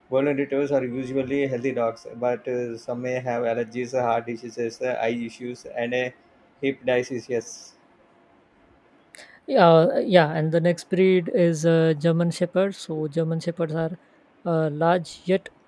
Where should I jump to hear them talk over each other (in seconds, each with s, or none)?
none